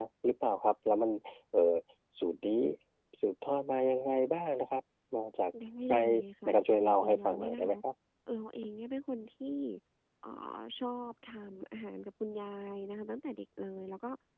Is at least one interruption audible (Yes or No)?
Yes